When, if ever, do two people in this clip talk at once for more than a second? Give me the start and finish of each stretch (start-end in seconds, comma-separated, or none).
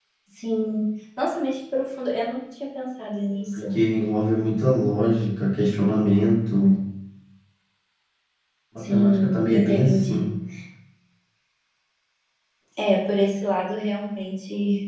8.8-10.3